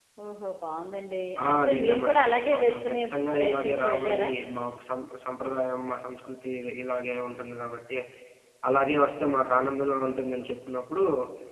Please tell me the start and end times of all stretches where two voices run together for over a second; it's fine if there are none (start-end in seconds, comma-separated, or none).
1.5-4.3